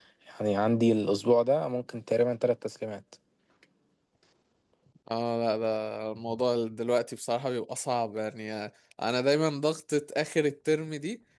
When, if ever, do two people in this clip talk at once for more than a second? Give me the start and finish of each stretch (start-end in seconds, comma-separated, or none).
none